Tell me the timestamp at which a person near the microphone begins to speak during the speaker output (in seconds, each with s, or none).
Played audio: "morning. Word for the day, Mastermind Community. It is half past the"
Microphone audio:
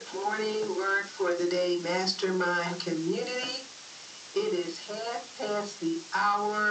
none